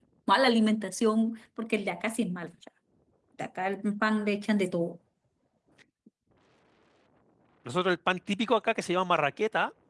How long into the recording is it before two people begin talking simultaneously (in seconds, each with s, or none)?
none